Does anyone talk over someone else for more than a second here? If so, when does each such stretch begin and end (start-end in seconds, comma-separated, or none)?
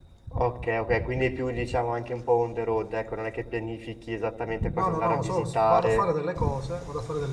4.8-6.0